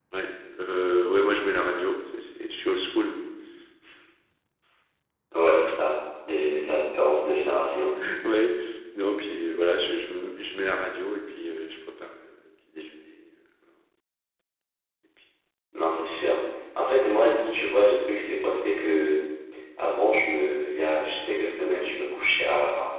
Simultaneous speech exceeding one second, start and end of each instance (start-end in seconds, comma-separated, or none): none